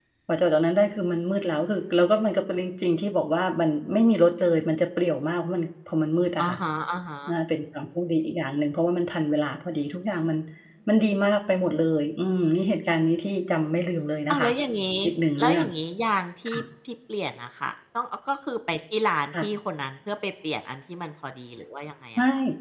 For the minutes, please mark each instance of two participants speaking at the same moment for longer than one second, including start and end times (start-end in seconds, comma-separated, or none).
none